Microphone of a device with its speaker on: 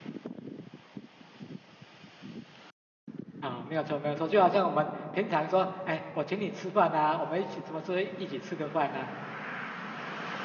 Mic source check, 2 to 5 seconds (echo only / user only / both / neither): user only